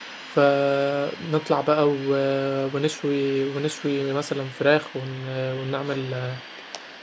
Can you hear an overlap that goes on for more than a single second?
No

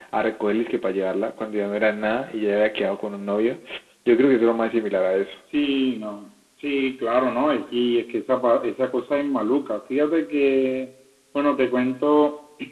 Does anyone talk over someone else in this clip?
No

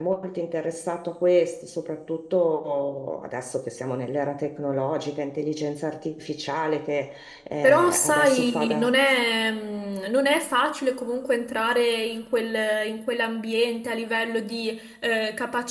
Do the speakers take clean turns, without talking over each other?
No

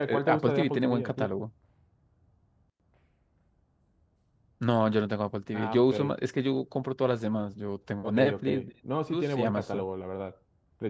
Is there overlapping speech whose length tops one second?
Yes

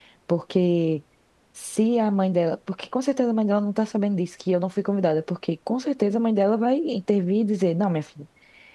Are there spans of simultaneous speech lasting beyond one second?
No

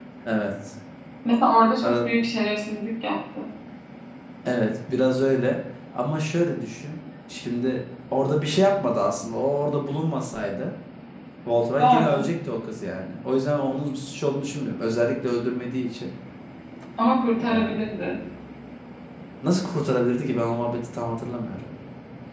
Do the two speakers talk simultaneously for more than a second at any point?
No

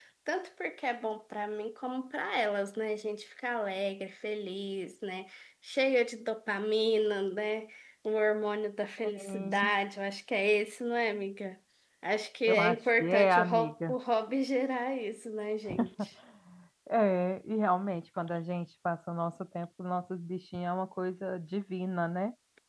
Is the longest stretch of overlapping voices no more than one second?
No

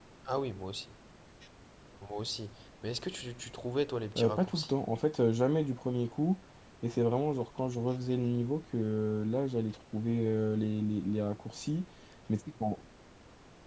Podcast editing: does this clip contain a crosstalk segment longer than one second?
No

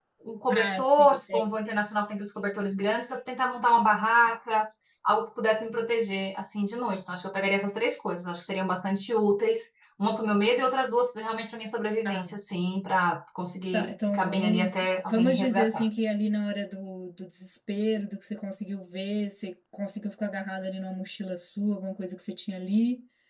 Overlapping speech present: Yes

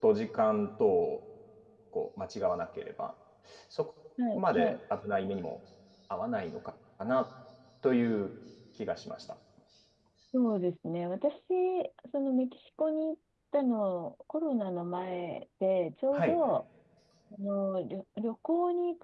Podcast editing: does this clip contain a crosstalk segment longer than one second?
No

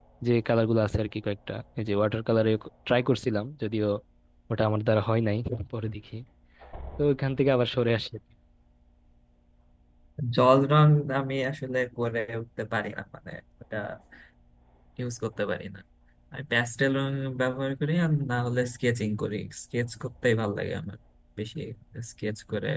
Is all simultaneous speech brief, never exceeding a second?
Yes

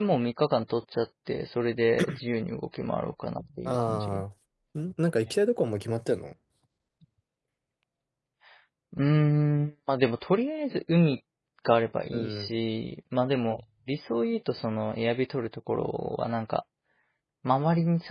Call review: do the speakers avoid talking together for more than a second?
Yes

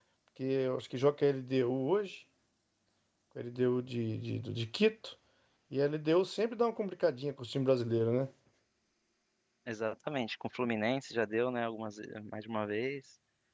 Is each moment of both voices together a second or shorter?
Yes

